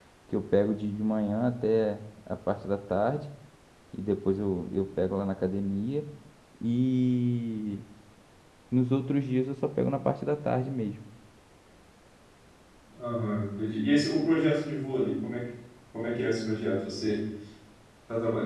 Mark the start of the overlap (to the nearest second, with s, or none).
none